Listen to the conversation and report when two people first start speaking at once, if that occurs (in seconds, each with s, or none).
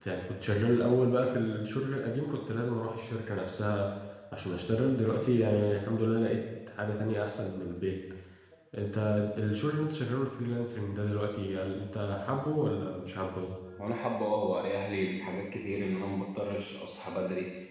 none